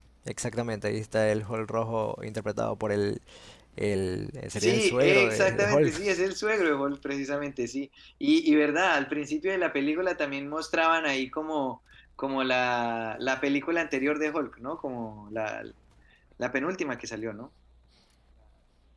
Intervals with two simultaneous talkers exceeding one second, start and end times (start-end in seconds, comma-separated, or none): 4.6-5.9